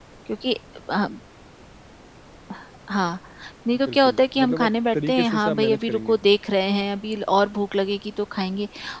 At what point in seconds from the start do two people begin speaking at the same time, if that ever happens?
3.8 s

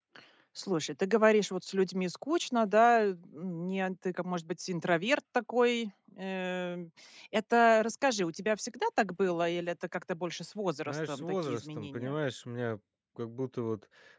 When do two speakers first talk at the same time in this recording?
10.9 s

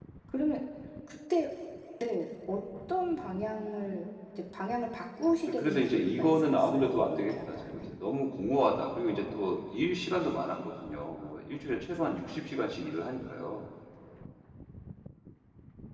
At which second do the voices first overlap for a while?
5.5 s

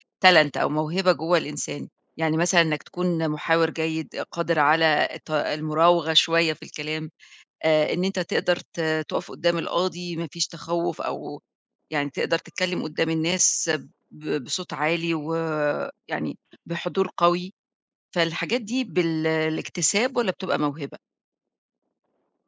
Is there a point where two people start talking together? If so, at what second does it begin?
none

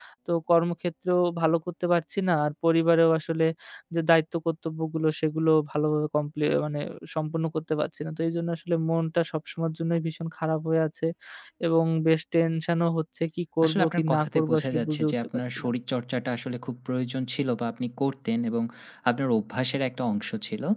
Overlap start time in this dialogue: 13.6 s

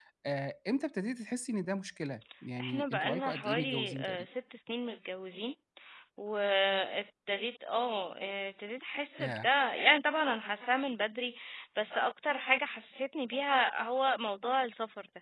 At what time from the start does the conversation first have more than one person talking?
2.6 s

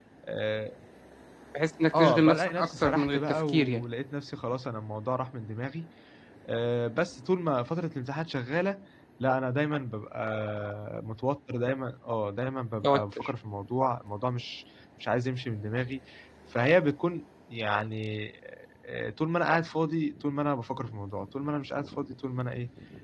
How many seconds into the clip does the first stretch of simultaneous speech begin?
1.9 s

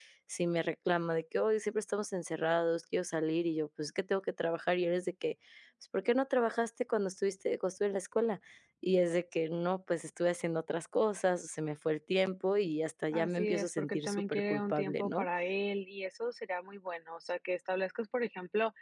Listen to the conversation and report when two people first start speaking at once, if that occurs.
13.1 s

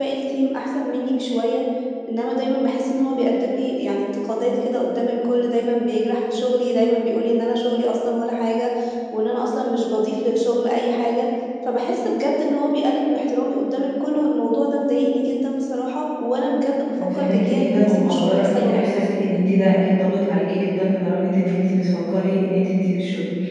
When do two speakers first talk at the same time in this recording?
16.9 s

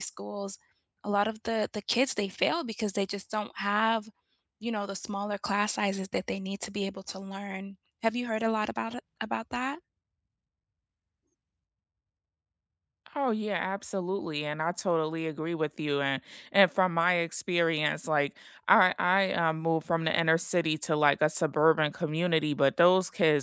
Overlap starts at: none

